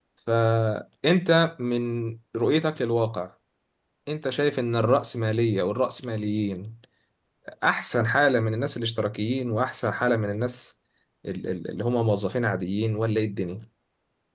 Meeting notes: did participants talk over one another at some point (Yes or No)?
No